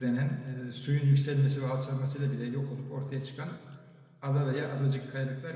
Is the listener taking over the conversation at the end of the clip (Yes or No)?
No